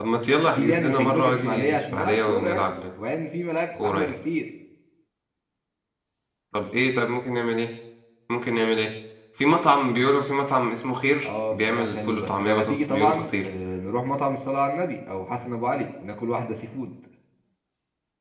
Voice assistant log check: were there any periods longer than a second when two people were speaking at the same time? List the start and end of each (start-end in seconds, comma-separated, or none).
0.6-2.6, 11.2-13.3